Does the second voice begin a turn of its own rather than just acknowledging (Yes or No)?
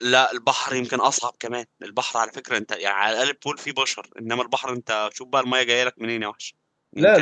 Yes